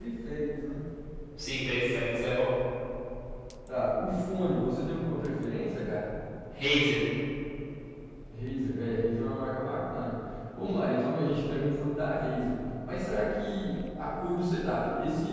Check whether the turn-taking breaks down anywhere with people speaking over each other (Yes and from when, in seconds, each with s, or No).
No